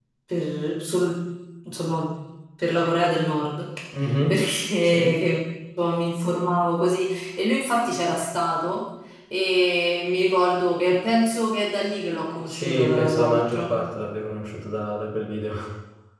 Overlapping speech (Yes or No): Yes